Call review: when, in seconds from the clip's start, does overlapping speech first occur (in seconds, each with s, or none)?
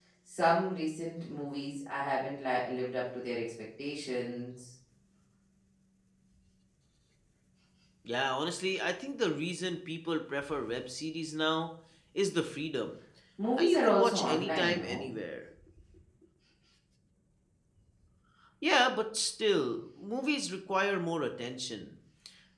13.6 s